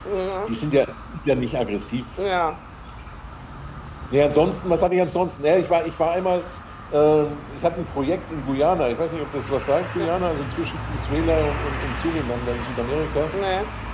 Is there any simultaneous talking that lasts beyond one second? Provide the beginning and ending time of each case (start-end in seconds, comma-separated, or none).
none